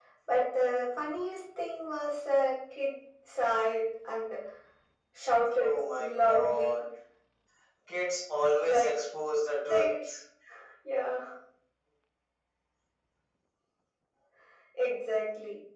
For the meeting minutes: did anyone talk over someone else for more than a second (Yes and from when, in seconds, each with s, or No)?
Yes, from 5.6 s